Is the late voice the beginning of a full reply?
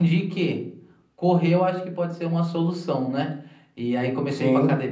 No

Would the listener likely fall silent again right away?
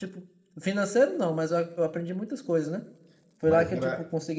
Yes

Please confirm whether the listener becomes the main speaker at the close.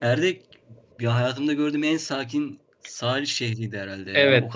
No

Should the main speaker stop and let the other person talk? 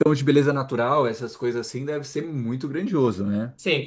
Yes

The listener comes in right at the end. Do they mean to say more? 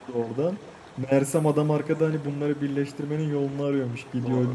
No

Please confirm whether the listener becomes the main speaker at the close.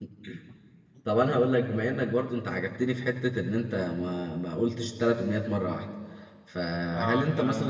No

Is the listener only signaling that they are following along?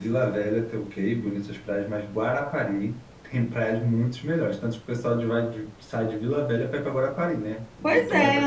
No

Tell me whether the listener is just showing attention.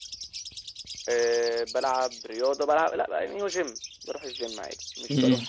Yes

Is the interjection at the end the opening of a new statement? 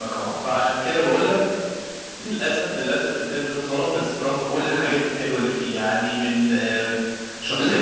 No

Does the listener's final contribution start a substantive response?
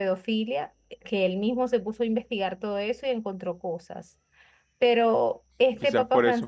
Yes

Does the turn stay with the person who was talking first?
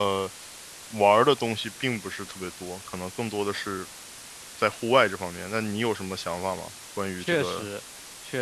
No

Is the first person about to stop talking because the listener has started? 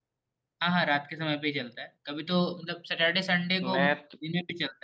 No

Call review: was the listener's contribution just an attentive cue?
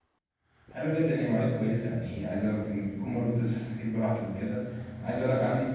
Yes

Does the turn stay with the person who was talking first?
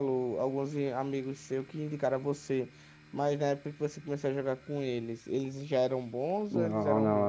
No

